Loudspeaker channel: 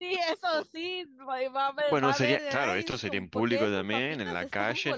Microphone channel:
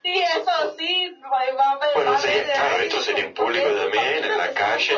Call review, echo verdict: present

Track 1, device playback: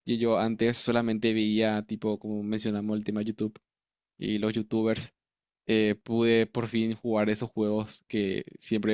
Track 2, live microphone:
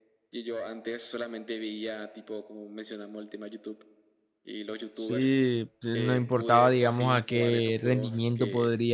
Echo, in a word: present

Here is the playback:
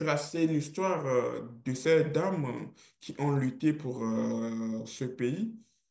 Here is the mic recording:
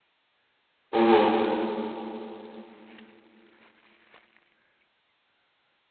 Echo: none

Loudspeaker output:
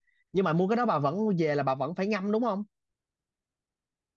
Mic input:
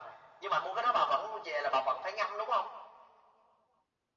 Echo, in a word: present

